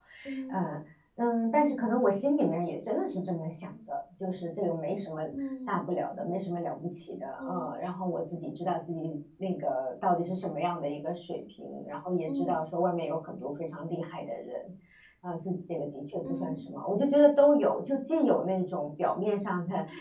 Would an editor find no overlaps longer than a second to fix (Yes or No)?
Yes